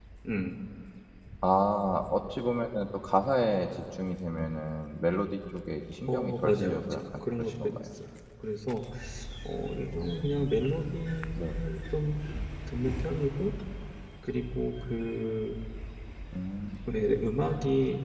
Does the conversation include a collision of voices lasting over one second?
Yes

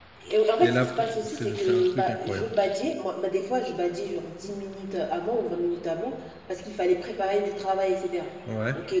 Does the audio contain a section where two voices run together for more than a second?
Yes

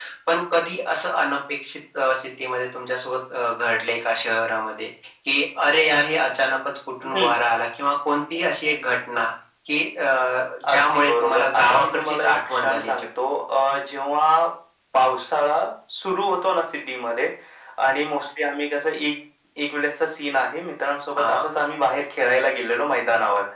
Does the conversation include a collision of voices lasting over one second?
Yes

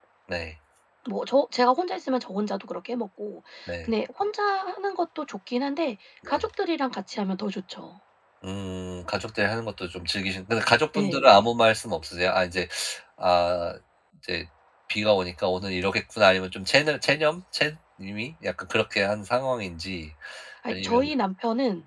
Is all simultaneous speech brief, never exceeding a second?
Yes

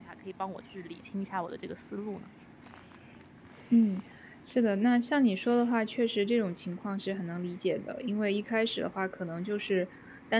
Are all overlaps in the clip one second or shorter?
Yes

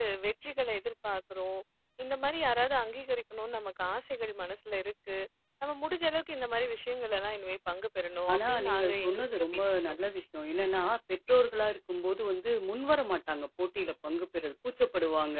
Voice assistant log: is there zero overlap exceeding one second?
No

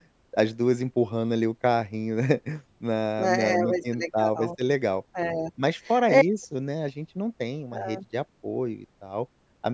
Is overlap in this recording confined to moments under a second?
No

